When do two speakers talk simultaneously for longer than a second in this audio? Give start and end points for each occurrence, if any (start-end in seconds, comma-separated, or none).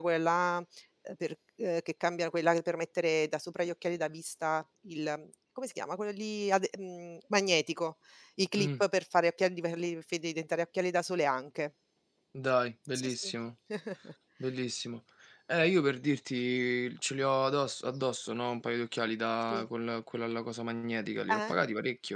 none